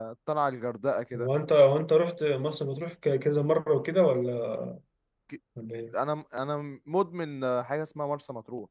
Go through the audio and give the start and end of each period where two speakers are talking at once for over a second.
none

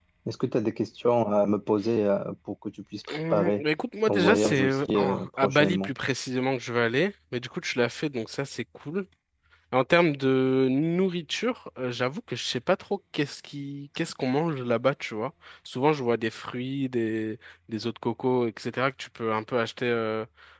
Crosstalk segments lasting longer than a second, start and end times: 4.1-5.9

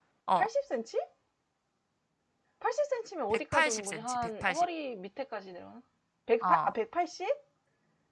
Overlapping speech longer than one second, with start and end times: 3.3-4.7

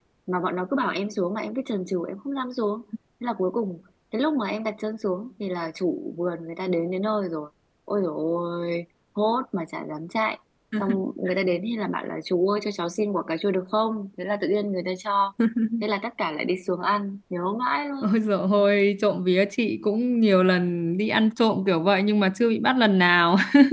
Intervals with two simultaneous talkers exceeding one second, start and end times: none

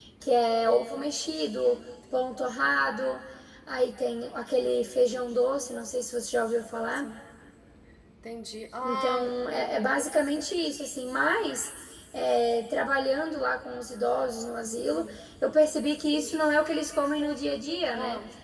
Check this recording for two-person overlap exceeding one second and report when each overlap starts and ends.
none

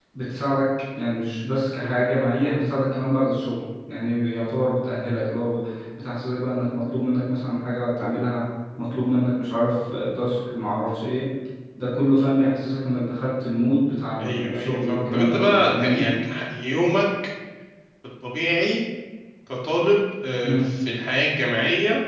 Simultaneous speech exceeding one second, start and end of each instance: 14.2-16.0

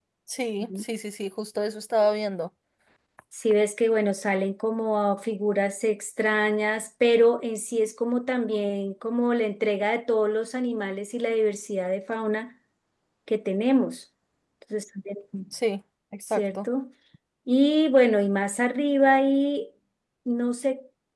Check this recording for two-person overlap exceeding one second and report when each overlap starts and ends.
none

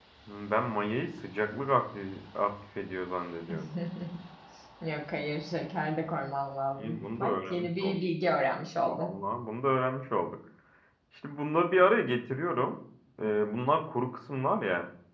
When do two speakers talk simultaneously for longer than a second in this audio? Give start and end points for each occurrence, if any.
6.8-8.0

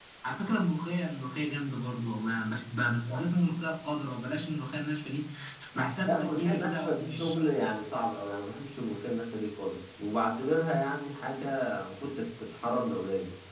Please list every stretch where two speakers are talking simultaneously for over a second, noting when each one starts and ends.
6.1-7.4

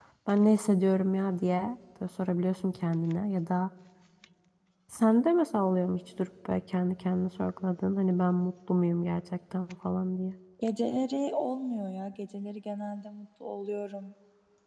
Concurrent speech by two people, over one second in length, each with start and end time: none

